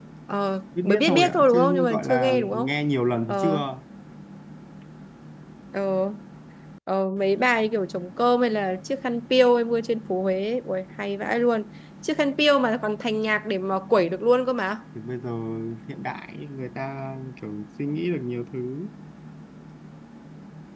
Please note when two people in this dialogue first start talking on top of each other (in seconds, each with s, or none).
0.8 s